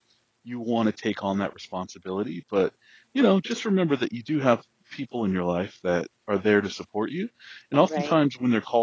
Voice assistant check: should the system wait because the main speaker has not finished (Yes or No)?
Yes